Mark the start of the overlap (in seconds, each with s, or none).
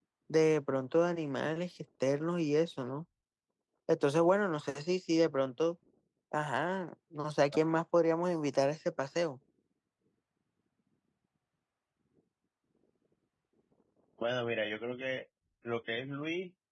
none